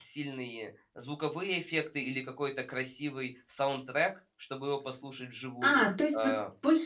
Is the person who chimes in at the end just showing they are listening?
No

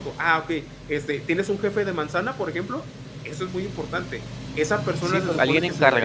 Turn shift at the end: Yes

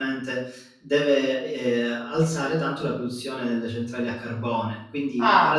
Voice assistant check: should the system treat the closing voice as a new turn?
No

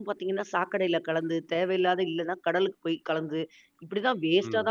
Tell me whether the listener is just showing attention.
Yes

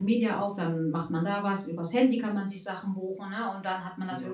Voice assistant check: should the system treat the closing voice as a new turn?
No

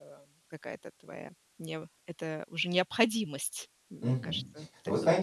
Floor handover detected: Yes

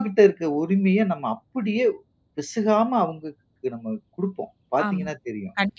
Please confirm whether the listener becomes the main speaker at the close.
Yes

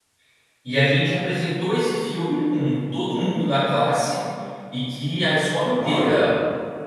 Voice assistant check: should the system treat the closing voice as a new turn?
No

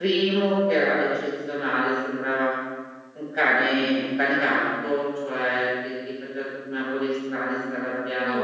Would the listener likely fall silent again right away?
Yes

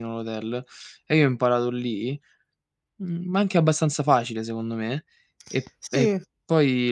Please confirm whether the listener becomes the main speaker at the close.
No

